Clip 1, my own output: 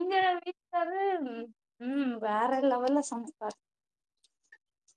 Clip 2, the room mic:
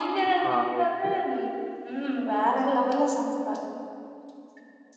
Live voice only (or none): ஆ ஓகே